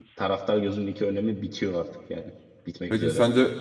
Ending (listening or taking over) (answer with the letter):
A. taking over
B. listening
A